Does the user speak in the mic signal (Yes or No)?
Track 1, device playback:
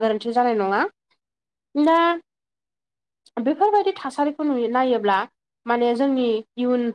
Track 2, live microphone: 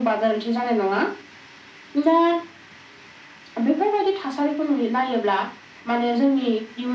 No